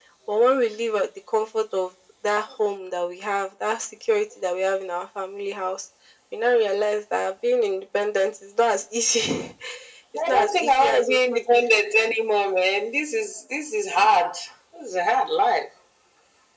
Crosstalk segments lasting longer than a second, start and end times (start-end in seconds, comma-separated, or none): 10.2-11.6